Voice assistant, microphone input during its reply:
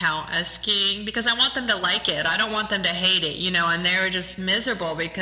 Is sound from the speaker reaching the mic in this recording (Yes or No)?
Yes